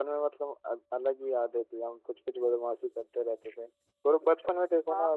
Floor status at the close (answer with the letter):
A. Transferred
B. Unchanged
B